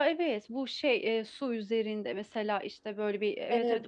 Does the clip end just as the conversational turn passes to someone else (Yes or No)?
Yes